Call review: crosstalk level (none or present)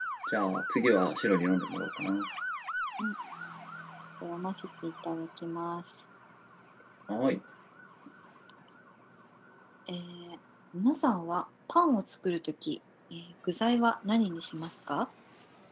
none